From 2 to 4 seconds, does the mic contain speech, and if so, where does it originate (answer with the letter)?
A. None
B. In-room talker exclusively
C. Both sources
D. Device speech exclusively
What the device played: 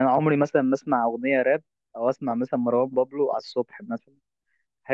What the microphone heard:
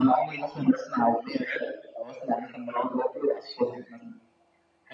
D